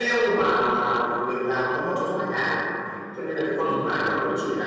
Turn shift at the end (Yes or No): No